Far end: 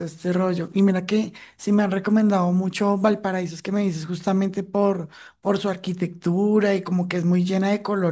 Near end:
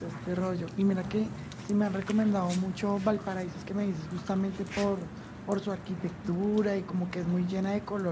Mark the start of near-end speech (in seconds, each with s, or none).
none